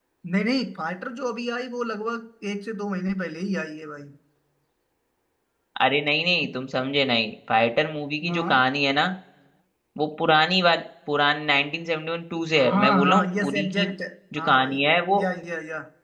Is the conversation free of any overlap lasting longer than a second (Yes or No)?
No